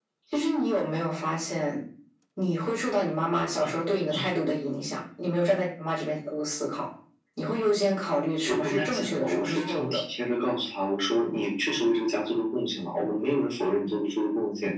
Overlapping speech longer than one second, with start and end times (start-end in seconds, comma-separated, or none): 8.5-10.0